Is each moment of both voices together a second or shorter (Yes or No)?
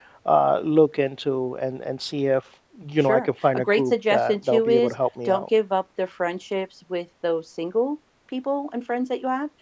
No